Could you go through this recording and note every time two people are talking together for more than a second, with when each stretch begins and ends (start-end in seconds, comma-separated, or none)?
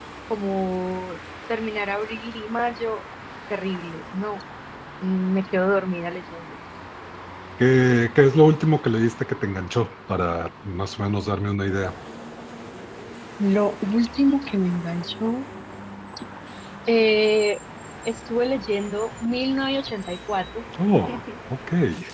none